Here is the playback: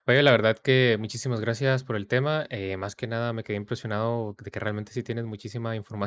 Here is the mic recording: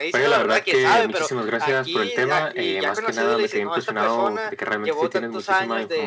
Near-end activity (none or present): present